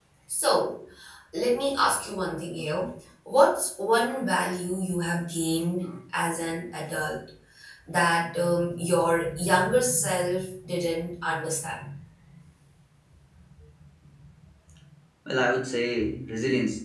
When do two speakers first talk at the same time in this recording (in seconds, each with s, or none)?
none